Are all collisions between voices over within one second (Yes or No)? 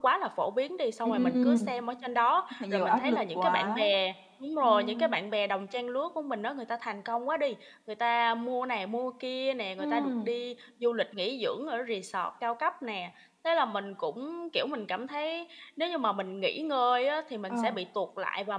No